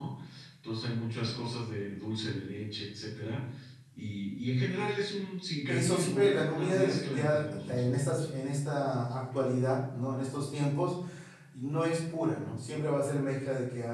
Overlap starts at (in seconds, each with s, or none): 5.7 s